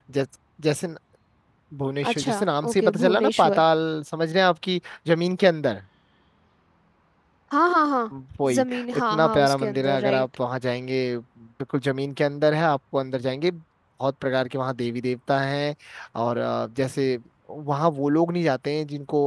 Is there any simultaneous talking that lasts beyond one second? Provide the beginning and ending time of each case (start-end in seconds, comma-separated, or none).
2.1-3.6, 8.6-10.2